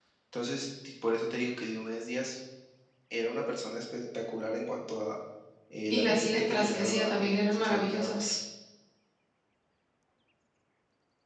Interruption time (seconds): 6 s

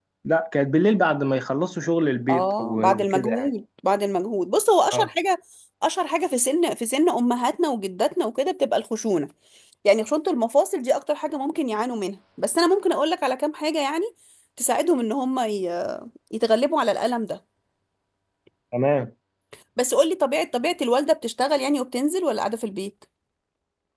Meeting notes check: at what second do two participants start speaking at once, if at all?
2 s

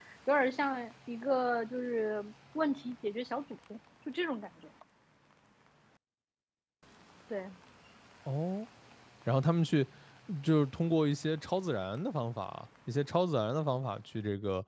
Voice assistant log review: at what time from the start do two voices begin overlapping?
none

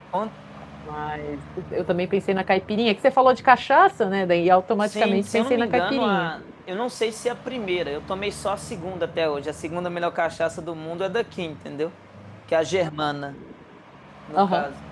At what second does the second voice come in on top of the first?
5 s

